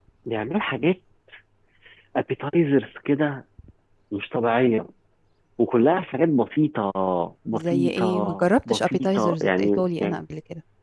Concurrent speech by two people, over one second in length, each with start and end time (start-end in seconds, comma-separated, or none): 7.5-10.2